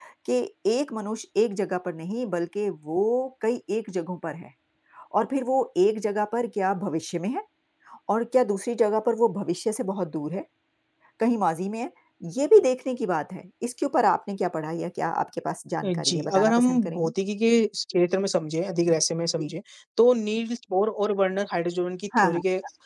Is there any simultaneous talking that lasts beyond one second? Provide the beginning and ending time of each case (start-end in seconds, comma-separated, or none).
15.8-17.1